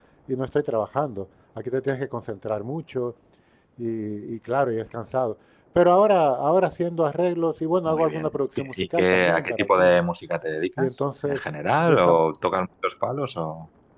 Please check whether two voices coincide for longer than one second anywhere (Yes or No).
Yes